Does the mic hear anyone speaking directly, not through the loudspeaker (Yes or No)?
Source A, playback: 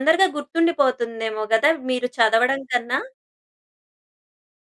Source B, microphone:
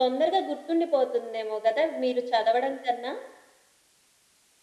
No